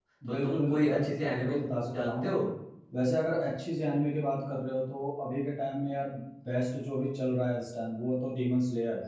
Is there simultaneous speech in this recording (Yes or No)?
Yes